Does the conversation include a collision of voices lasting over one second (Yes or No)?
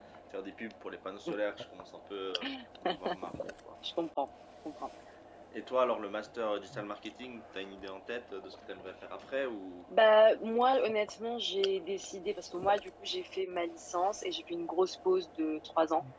No